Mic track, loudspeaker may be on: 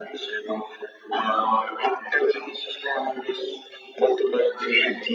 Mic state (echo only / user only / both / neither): echo only